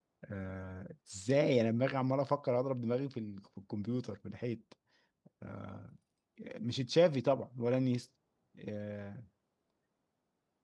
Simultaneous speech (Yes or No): No